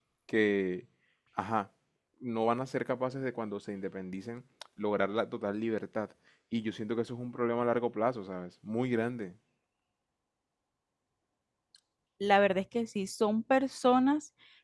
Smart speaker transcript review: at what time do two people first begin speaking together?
none

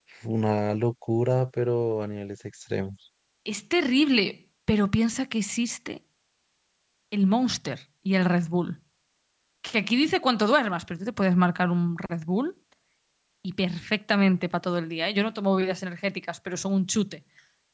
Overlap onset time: none

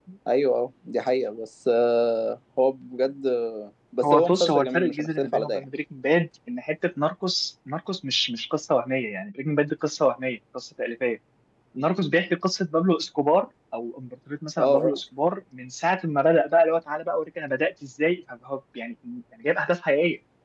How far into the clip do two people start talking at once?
4.0 s

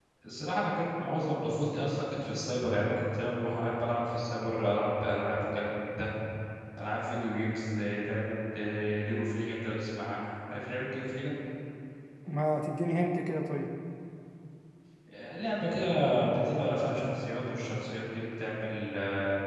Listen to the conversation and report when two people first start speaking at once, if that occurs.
none

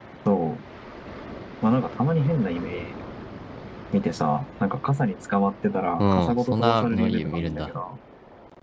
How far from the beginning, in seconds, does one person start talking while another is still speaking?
6.0 s

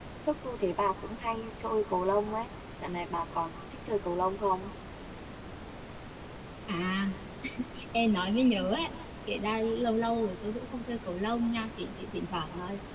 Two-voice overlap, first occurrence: none

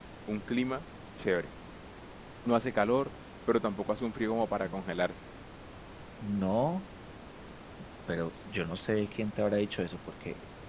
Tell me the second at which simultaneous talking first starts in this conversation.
none

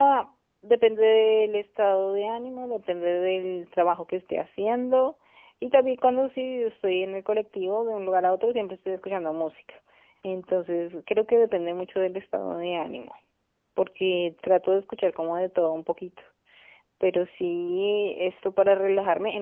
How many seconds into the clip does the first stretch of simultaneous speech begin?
none

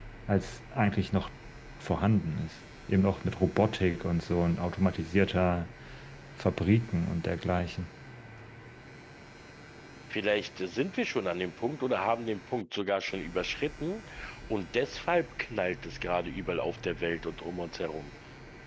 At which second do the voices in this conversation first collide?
none

